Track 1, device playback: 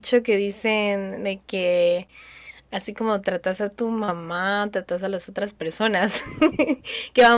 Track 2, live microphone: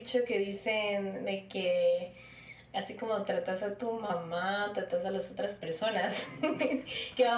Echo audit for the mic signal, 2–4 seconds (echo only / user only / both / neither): echo only